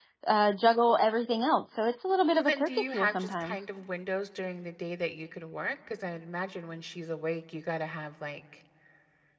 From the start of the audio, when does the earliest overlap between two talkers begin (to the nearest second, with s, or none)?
2 s